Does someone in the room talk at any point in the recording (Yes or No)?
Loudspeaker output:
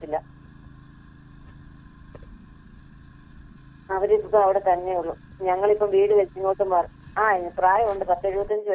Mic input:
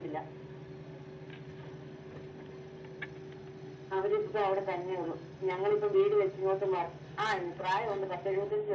No